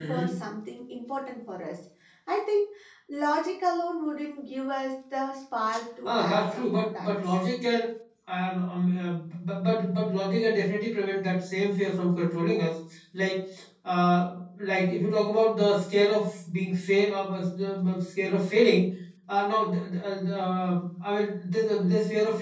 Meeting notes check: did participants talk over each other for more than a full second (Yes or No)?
Yes